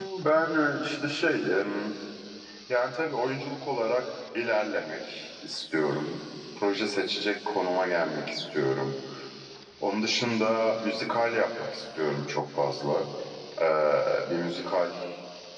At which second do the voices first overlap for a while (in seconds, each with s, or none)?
none